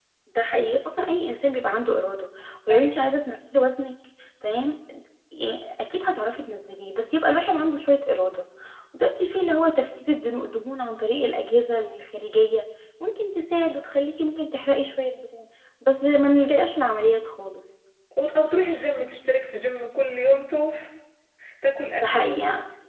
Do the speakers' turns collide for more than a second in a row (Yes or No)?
No